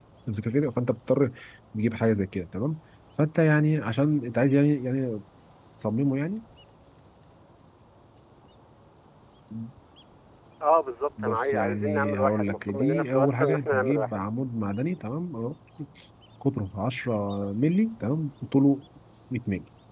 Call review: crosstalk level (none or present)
present